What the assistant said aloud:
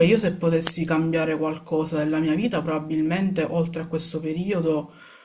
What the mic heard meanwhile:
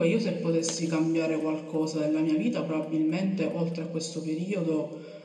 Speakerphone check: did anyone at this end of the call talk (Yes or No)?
No